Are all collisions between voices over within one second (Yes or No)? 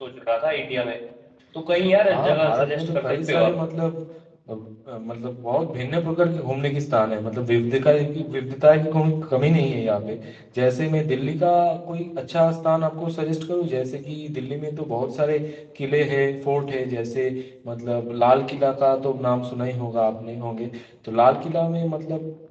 No